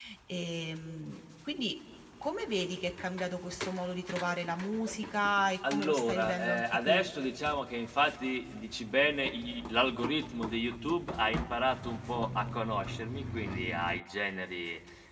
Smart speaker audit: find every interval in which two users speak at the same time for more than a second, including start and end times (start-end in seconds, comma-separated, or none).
5.7-7.1